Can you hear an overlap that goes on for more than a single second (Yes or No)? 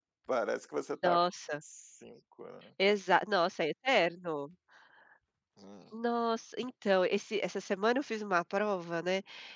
No